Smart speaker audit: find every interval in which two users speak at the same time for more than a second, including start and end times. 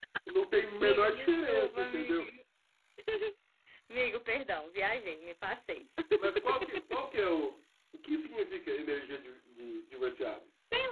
0.8-2.3

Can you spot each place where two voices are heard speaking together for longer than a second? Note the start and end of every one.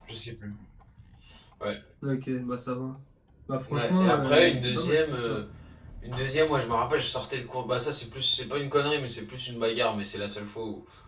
3.7-5.4

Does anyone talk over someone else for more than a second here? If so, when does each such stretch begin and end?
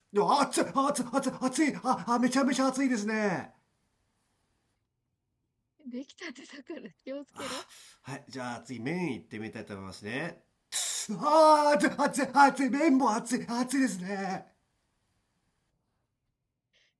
none

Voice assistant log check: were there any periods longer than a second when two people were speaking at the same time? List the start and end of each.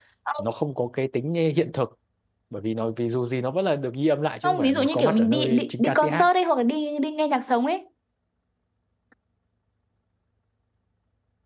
4.4-6.3

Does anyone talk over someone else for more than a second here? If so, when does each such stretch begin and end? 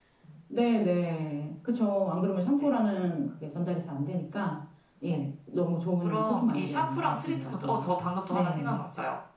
6.0-7.9

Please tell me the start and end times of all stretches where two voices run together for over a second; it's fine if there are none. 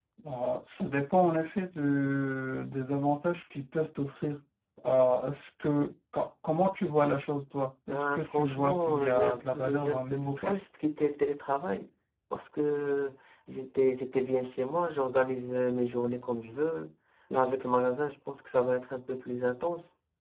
7.9-10.6

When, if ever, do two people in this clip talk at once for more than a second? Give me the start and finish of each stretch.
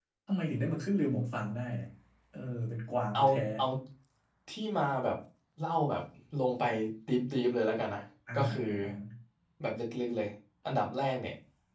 none

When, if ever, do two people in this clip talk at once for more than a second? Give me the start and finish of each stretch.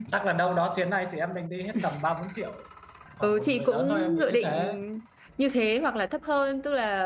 3.2-4.6

